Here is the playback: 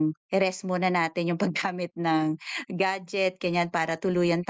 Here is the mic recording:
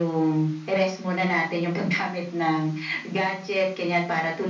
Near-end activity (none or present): none